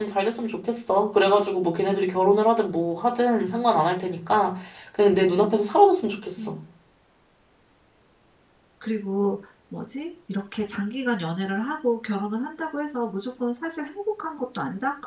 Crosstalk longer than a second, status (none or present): none